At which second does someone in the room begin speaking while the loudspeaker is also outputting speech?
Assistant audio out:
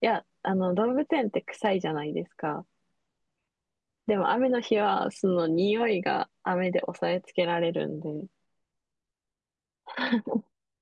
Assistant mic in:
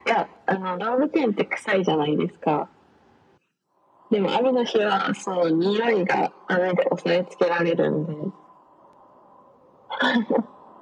none

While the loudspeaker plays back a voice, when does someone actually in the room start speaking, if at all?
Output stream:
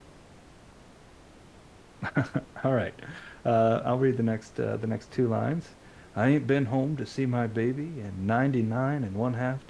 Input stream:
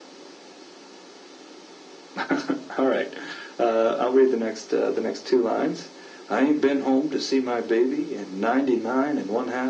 none

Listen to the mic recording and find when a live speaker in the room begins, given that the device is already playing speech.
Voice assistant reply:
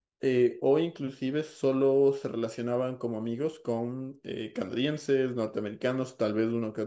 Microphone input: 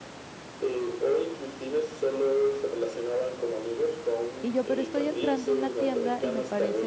4 s

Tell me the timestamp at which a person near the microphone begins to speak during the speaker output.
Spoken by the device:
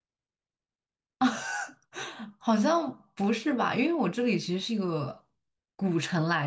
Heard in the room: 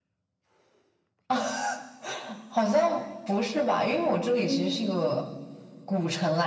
4 s

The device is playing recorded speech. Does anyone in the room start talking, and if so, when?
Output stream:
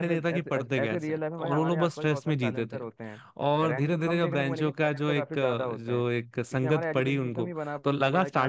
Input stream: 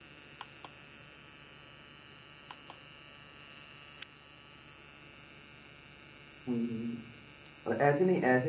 6 s

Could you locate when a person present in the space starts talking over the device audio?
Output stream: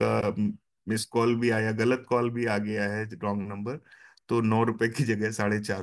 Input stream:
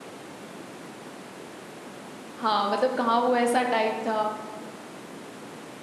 2 s

